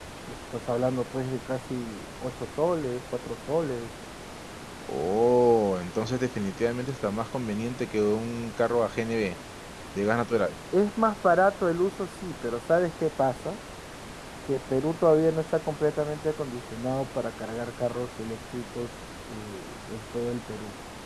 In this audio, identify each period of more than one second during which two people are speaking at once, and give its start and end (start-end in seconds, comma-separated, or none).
none